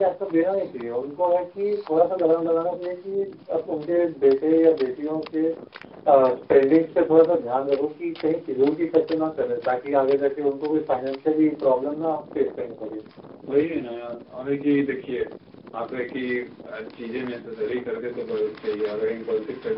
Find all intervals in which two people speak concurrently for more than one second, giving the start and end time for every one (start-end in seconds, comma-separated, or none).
none